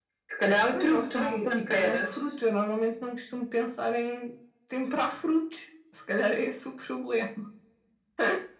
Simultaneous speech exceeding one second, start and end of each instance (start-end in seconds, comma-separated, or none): 0.8-2.1